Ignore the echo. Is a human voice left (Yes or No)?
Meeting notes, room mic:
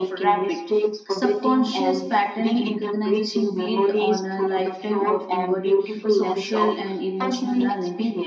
Yes